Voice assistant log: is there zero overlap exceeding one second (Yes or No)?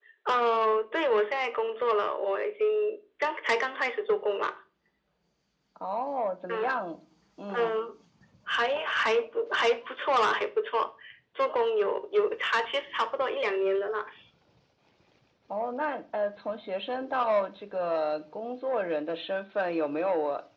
Yes